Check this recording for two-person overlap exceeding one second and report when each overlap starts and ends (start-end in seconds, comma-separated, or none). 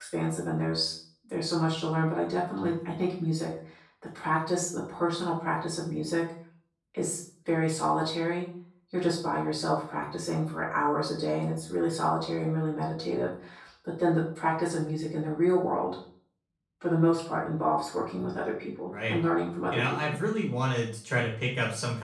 none